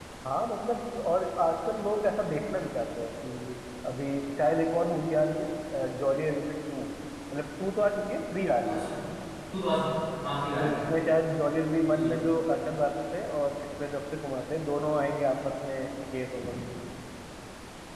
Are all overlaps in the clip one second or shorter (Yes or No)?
Yes